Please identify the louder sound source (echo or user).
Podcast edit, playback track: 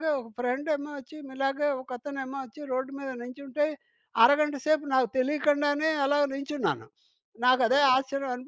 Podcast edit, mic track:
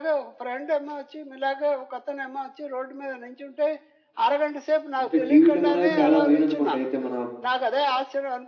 user